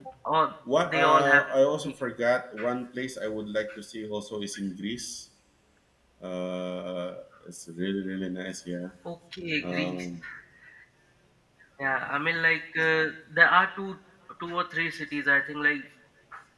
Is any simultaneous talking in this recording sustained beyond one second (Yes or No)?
No